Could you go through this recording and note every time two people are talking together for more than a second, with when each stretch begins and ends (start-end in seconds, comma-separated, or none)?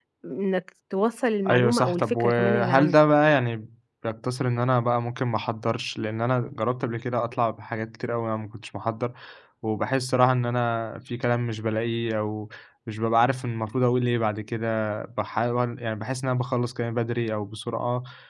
1.5-3.0